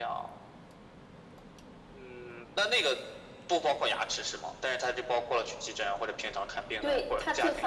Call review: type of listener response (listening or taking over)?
taking over